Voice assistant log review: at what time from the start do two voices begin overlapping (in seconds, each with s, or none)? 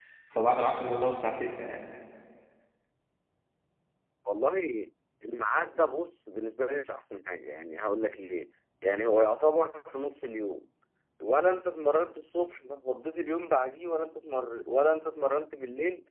none